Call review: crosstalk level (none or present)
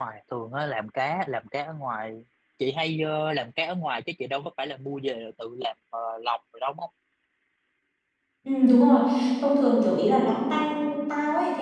none